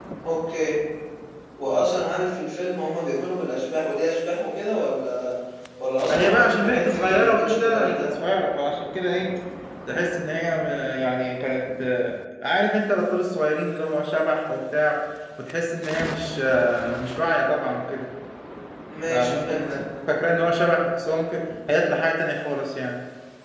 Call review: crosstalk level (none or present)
present